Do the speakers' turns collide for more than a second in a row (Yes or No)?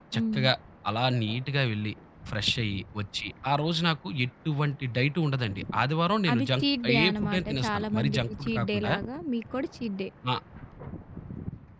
Yes